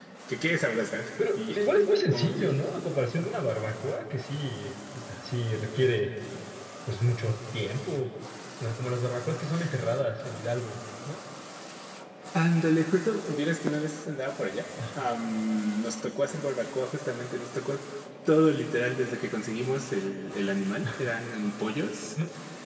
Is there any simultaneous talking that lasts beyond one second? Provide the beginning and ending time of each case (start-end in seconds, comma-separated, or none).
none